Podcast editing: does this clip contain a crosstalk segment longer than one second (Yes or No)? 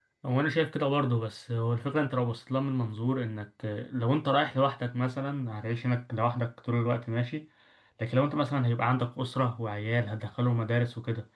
No